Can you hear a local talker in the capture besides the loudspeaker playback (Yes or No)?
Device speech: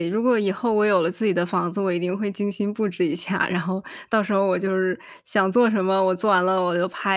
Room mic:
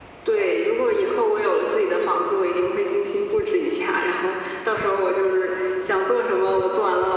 No